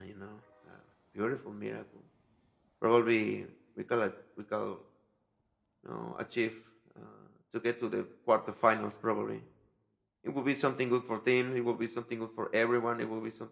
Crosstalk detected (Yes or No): No